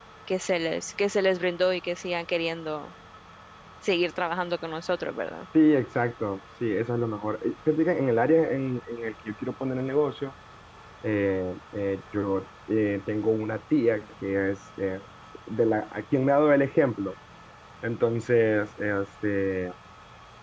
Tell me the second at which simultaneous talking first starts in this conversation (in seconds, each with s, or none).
none